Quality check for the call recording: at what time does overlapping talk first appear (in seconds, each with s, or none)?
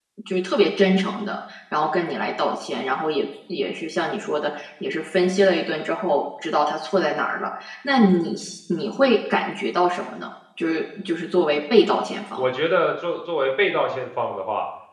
none